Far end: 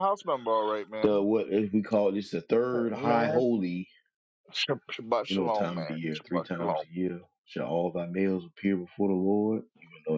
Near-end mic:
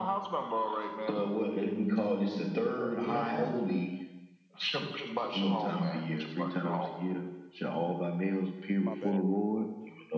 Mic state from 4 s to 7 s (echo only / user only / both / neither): echo only